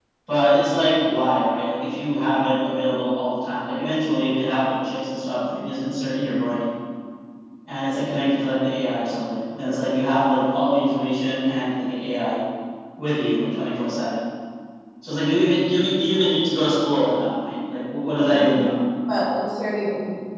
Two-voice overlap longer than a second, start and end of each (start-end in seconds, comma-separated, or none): none